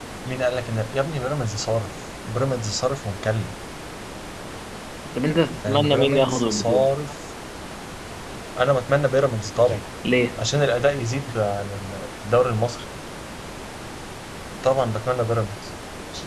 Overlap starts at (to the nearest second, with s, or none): 6 s